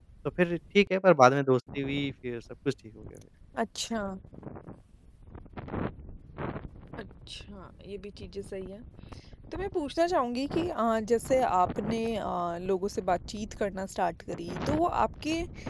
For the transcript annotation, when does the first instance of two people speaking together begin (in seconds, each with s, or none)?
none